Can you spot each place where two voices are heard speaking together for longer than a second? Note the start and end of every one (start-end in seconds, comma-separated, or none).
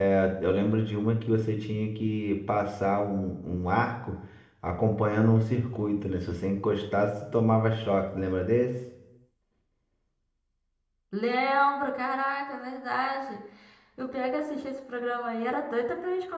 none